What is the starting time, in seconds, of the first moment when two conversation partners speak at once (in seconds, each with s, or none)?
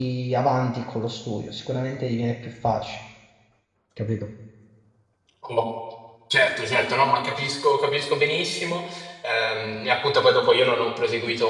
none